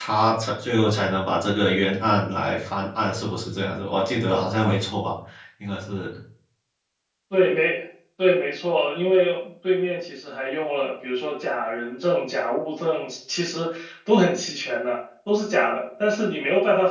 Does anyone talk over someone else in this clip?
No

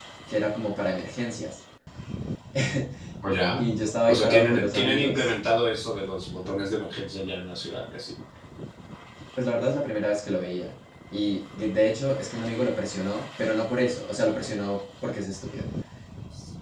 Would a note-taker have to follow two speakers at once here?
Yes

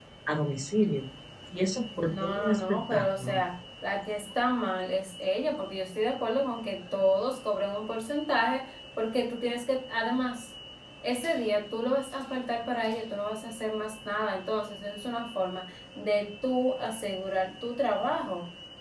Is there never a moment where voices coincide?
No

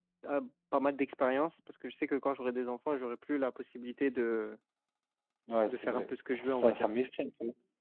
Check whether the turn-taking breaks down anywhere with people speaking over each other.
Yes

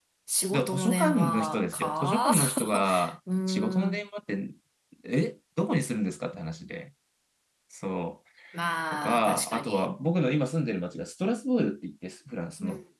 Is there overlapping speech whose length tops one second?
Yes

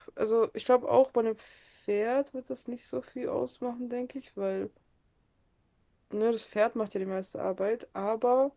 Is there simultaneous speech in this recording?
No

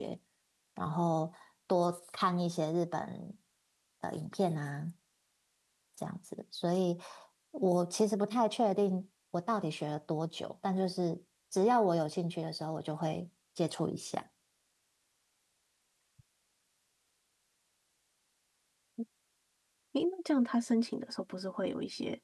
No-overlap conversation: Yes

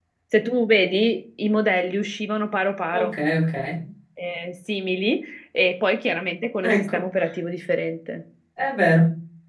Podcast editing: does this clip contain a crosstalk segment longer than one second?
No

